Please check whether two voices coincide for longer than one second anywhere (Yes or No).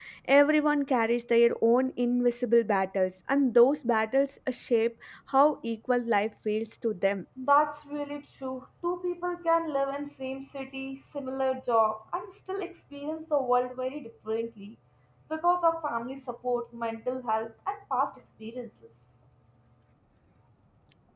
No